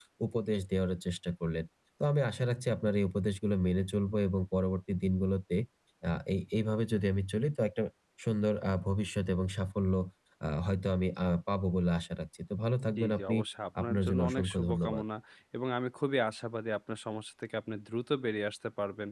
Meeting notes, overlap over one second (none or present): present